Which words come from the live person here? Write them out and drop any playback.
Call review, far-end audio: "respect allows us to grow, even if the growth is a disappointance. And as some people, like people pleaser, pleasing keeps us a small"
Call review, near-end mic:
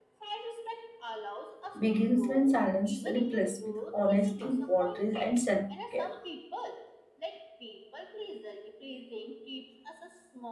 begins when silence is replaced with honesty, boundaries, and self care.

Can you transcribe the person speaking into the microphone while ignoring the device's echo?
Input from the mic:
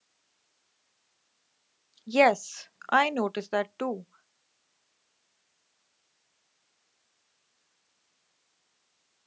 Yes, I noticed that too.

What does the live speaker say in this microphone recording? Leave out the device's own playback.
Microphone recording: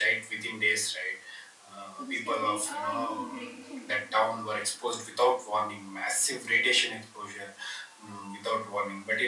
So this can be a you know breakthrough.

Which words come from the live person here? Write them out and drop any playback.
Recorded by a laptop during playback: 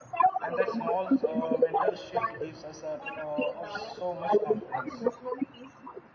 and that small uh, mental shift gives us a, uh, of so much confidence.

